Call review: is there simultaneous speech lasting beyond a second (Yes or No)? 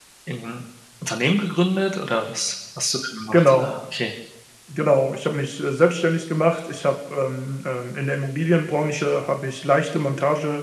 No